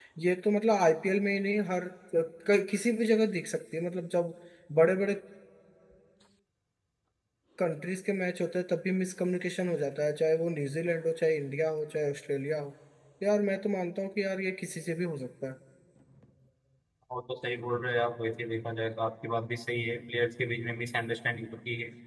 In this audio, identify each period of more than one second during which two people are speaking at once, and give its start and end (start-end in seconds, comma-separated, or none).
none